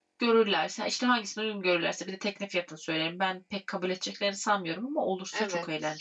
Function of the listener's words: taking over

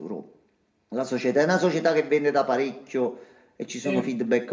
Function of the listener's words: listening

